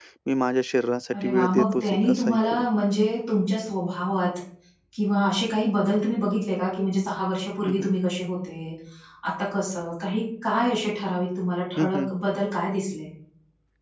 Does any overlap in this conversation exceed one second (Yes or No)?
Yes